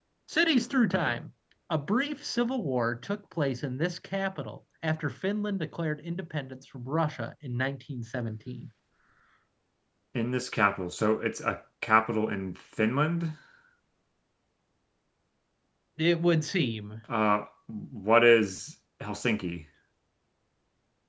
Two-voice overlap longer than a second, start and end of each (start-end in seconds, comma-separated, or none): none